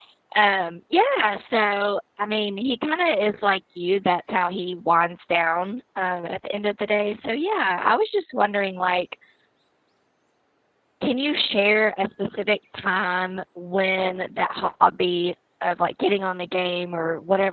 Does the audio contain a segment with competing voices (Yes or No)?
No